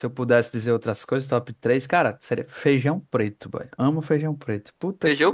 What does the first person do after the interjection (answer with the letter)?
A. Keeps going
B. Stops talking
B